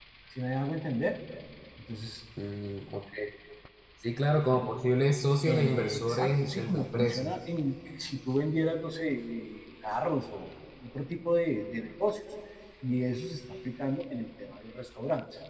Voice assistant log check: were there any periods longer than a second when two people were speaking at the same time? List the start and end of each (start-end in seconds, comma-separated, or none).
5.5-7.2